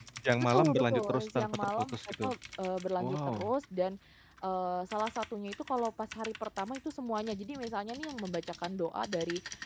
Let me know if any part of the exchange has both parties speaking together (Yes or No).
Yes